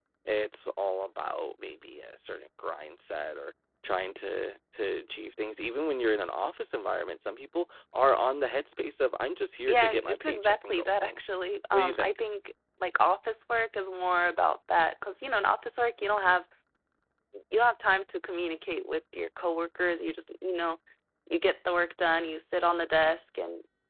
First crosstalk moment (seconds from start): 9.7 s

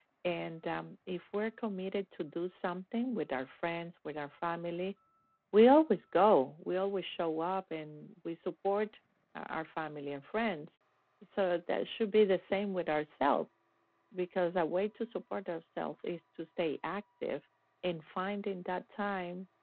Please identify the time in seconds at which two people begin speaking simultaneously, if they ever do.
none

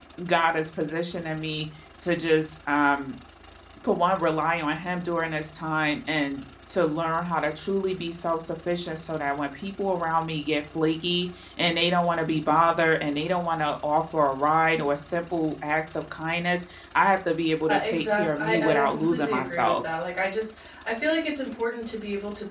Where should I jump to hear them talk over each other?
17.7 s

